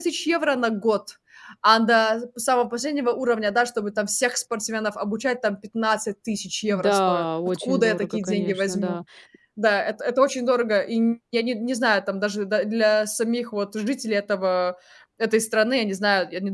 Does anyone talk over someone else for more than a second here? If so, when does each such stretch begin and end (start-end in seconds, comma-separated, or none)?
6.7-9.0